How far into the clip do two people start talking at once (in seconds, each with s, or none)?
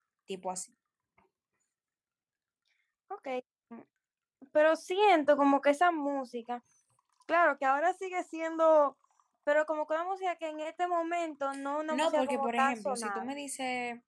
11.9 s